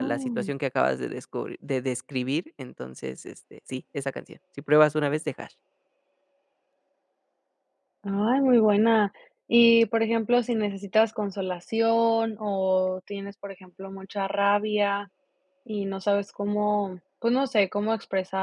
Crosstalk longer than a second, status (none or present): none